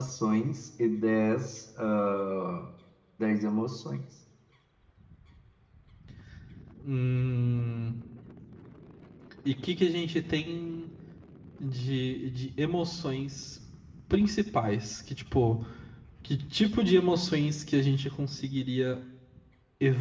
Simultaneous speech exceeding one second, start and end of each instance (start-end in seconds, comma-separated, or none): none